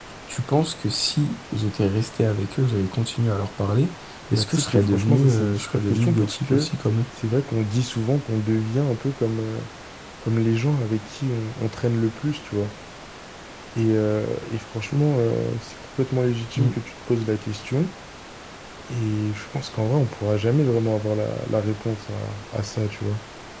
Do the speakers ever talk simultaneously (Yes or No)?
Yes